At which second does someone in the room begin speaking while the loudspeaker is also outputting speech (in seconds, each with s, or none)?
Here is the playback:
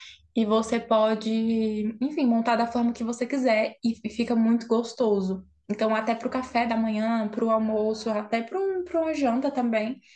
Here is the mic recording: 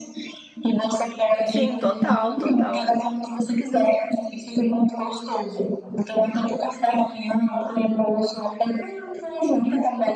1.4 s